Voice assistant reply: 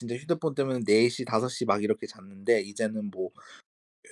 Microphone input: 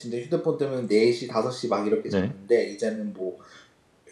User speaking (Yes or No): Yes